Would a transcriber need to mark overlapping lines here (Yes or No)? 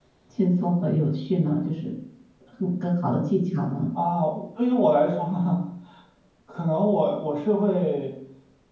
No